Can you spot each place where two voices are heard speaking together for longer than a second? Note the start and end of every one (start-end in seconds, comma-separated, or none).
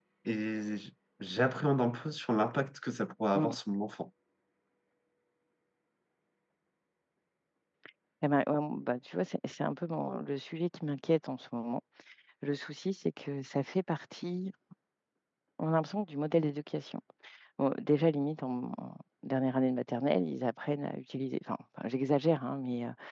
none